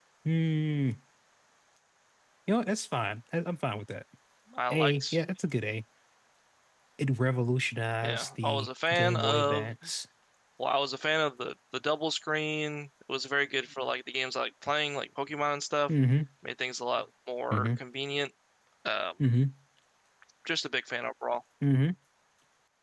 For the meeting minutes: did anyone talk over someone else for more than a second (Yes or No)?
Yes